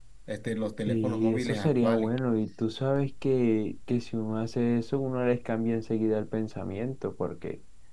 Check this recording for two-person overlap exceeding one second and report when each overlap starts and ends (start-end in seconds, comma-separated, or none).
0.9-2.1